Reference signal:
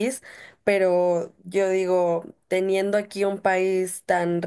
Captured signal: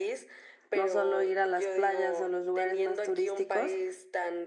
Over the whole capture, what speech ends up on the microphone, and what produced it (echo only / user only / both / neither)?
both